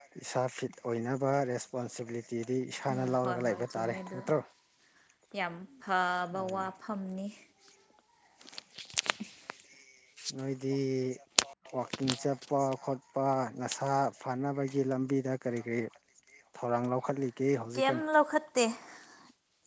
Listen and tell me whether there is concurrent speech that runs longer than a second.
Yes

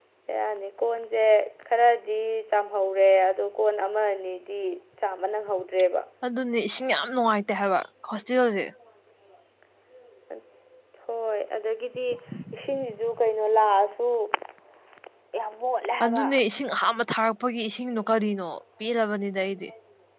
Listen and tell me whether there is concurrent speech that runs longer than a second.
No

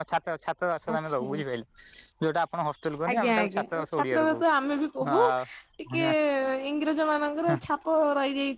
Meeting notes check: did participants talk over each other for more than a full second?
Yes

